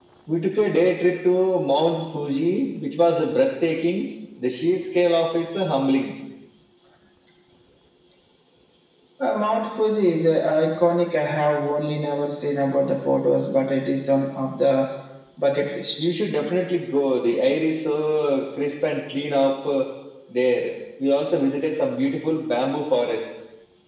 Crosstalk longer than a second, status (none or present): none